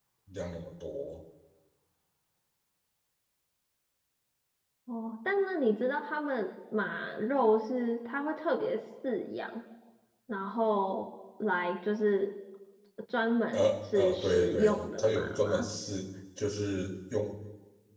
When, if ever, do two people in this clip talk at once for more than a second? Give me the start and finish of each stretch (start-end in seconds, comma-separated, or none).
13.5-15.7